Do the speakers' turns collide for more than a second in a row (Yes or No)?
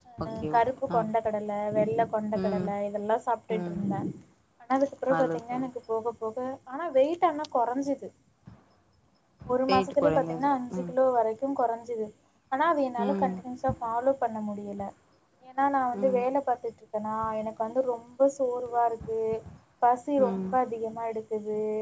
Yes